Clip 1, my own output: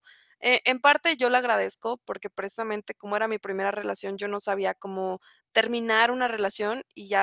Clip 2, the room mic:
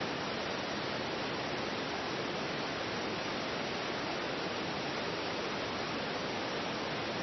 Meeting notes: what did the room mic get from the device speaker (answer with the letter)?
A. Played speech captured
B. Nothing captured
B